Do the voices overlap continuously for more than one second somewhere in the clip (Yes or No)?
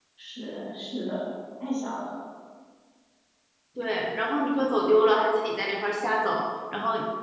No